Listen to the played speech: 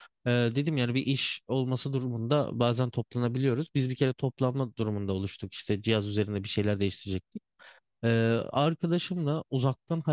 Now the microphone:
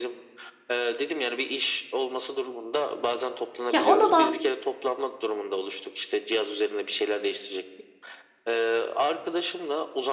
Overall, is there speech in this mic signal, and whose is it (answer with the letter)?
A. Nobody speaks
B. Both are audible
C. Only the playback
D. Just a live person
B